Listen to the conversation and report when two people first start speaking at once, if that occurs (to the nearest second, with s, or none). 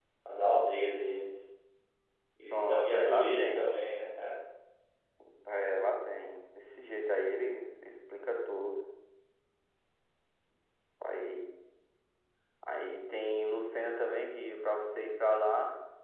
3 s